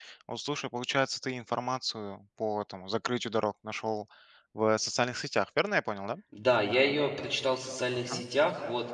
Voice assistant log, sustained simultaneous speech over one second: none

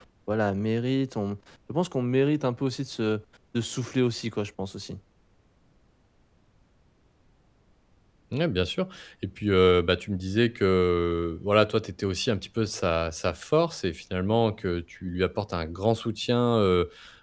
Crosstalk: none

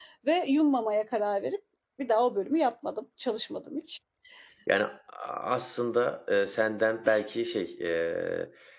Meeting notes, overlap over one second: none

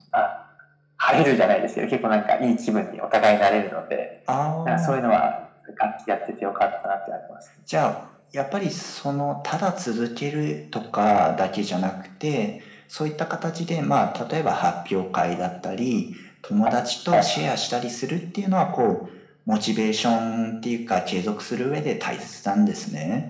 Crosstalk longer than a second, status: none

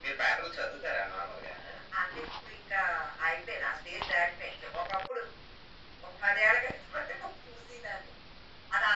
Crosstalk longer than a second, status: none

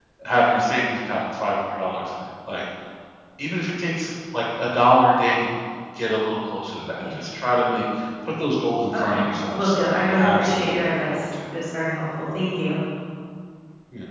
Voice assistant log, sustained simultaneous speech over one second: present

